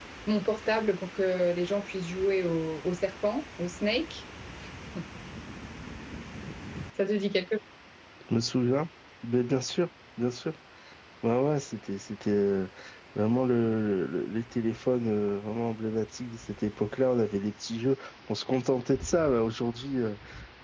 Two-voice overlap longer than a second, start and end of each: none

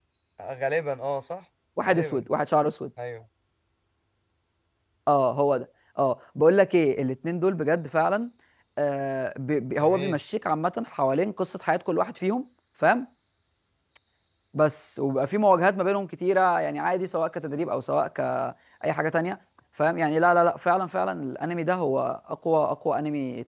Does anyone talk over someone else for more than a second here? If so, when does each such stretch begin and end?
none

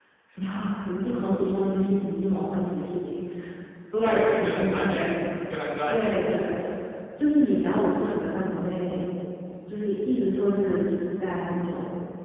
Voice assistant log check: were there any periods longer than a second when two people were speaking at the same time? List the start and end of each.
4.0-5.2

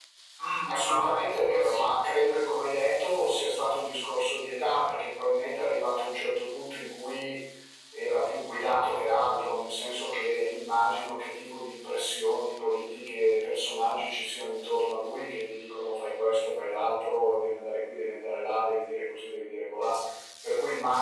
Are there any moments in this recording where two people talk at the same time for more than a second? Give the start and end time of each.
0.7-1.9

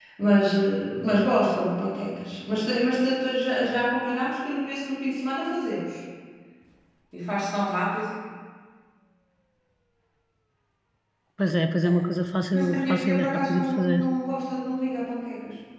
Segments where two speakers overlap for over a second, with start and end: 12.7-14.0

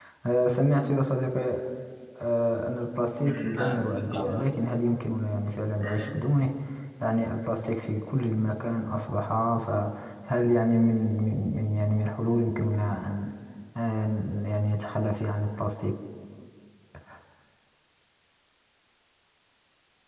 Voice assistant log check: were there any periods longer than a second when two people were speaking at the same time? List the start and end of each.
3.2-4.5

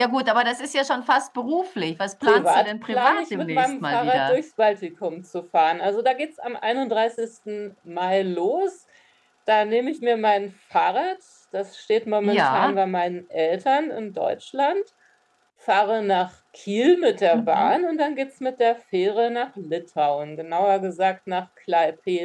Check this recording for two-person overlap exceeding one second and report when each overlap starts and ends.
2.2-4.4

